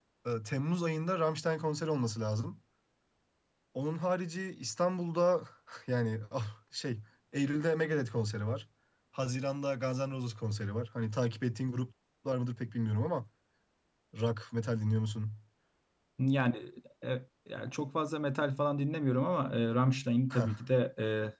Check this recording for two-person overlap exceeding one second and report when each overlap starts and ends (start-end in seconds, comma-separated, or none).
none